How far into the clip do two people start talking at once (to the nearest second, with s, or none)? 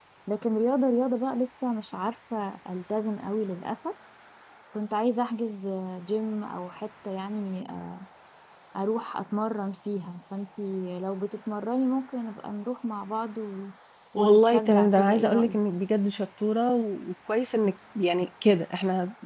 14 s